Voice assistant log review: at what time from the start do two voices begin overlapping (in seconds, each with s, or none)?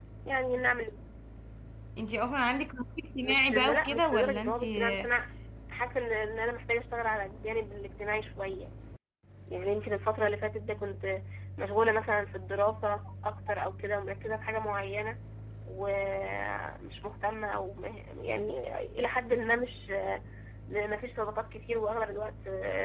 3.2 s